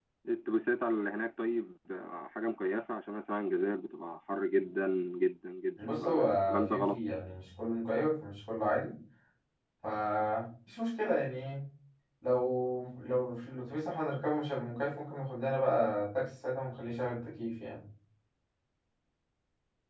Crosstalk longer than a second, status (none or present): present